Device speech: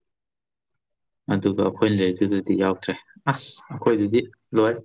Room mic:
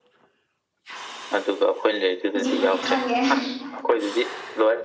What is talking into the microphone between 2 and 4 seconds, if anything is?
both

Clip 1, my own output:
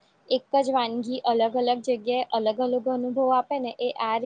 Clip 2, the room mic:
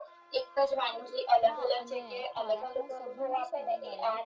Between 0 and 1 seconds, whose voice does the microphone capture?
echo only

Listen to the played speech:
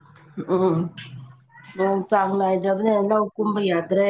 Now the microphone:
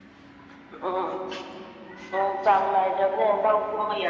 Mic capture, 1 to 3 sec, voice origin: echo only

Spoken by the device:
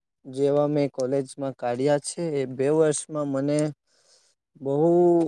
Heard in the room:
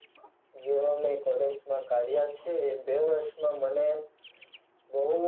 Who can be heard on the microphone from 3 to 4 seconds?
echo only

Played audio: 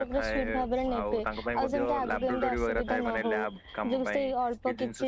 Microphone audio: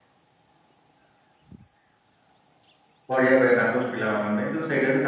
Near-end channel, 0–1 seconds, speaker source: neither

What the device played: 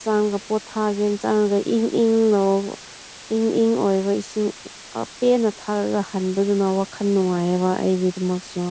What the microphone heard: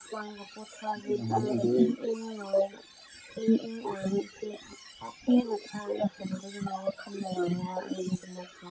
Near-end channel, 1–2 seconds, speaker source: both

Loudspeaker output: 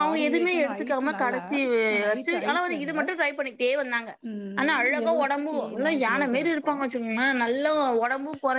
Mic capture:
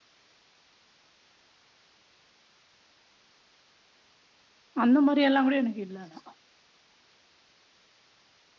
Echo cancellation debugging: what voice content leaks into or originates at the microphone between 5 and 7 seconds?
user only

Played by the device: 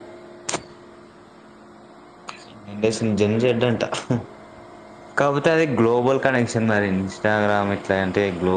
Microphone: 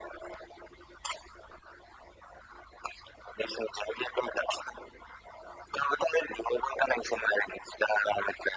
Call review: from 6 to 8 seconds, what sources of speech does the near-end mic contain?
echo only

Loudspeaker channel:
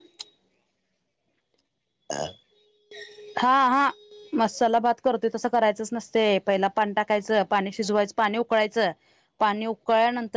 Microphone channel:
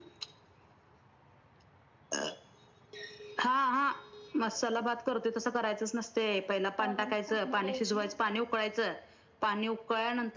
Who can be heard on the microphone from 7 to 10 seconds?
both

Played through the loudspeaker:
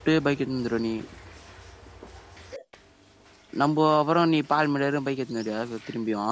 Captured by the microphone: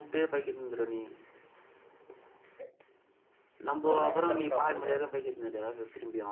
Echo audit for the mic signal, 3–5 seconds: both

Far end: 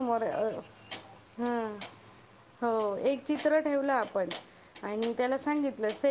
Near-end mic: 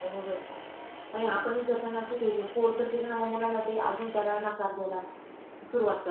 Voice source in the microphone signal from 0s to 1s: user only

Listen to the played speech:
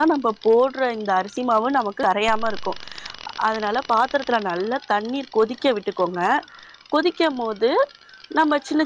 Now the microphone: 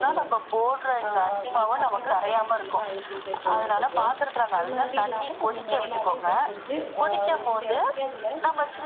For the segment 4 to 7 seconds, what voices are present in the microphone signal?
both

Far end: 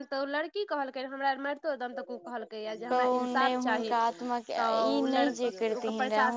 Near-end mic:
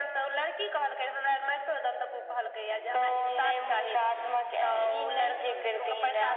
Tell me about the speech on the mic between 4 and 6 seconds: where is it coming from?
echo only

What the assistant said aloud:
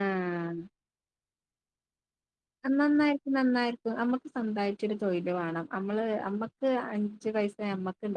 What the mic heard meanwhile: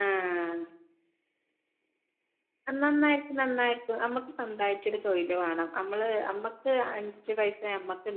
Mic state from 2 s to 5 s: echo only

